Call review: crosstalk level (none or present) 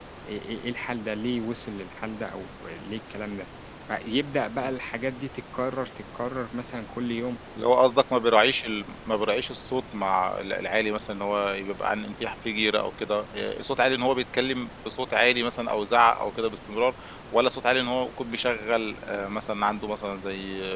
none